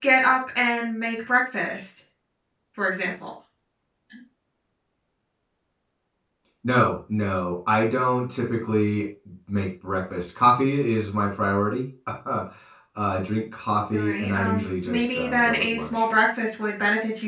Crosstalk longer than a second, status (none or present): present